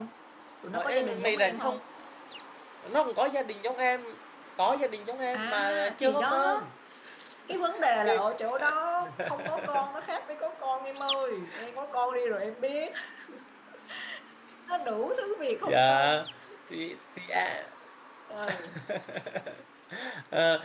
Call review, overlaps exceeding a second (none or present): present